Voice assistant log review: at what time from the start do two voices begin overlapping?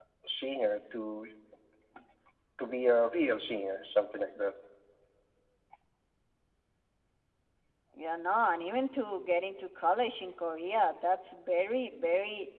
none

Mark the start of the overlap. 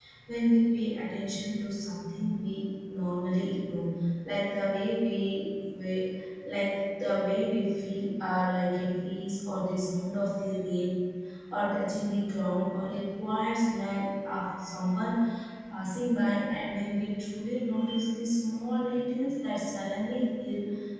none

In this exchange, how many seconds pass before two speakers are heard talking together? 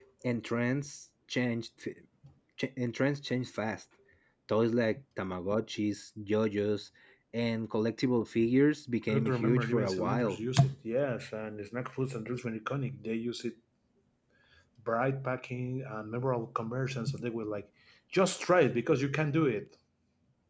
9.1 s

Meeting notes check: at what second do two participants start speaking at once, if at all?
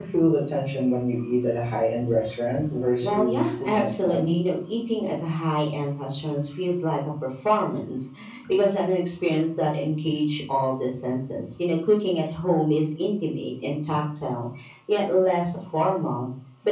3.0 s

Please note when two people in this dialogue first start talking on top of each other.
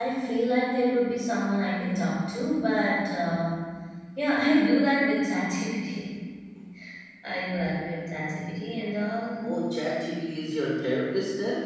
none

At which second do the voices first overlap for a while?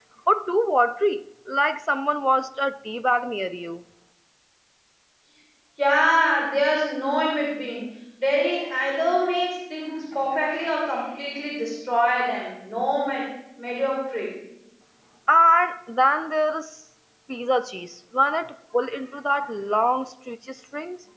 none

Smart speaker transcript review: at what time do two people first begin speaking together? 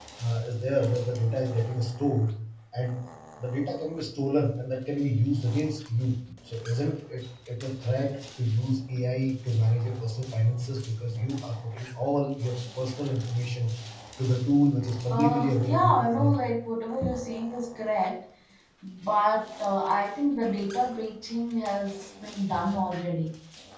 15.1 s

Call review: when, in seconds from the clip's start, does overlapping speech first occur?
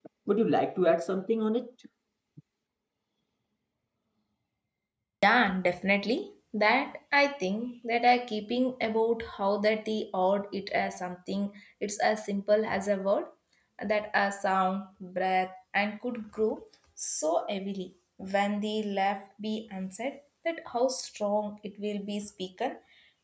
none

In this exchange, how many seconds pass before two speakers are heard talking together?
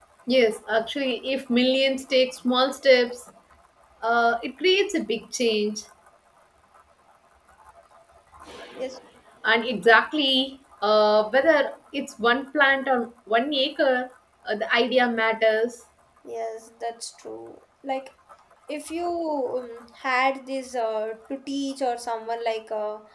none

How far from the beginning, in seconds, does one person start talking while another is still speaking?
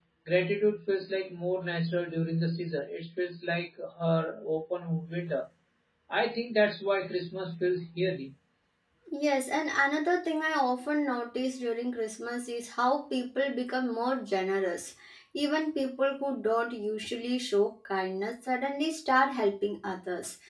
none

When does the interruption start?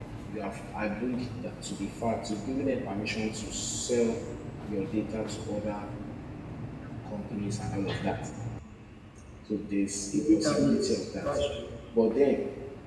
10.1 s

